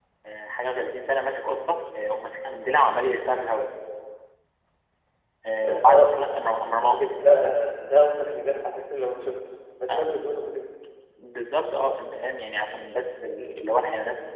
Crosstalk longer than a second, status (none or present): none